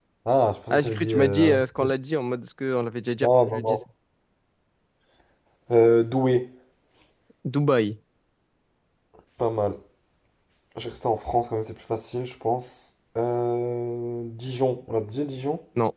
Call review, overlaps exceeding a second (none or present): present